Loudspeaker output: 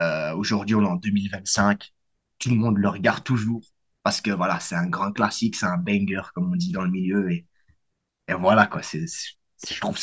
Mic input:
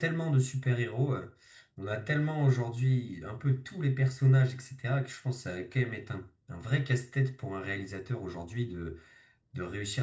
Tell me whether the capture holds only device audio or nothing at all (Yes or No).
No